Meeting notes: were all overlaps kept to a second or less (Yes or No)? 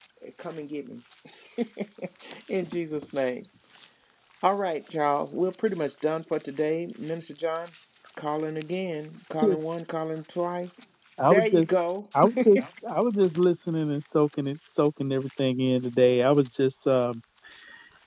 Yes